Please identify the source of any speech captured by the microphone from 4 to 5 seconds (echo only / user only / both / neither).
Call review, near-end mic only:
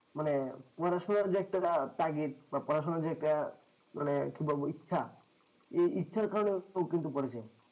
echo only